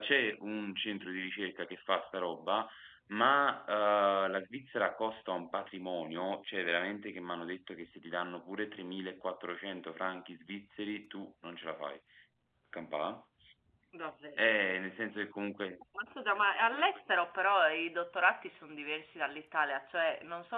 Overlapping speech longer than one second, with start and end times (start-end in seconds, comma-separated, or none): none